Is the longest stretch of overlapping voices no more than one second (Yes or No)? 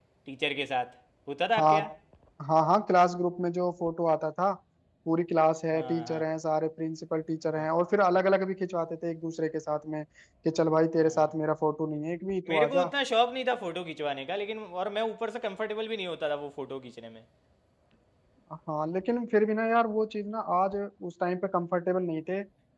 Yes